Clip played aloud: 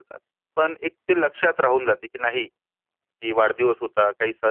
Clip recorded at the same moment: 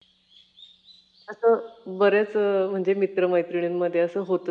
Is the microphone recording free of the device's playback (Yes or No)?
Yes